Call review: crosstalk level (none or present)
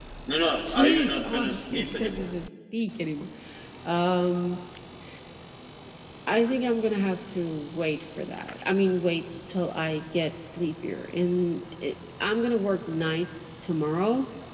present